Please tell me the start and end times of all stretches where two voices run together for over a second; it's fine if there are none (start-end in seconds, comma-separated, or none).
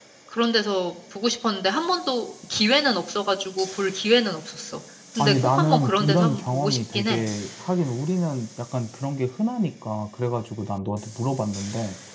5.2-7.2